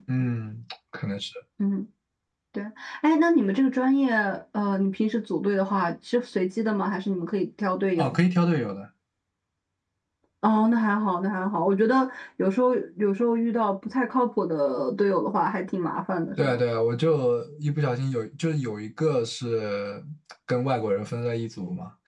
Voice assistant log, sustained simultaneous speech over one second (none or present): none